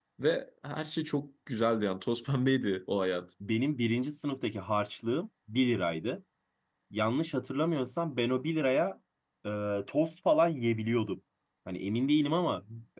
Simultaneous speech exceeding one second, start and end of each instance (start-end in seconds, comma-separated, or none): none